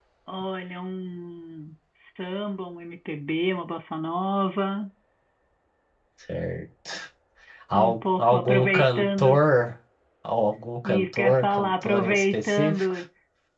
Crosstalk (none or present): present